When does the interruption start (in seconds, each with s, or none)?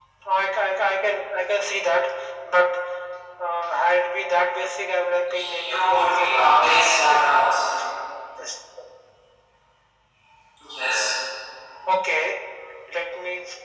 5.3 s